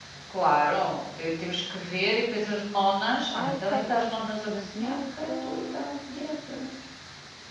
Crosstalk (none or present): present